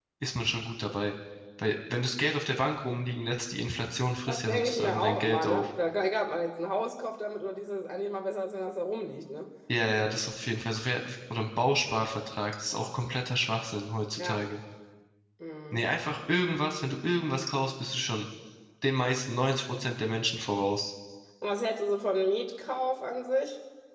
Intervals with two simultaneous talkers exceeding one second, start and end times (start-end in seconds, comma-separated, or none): 4.3-5.7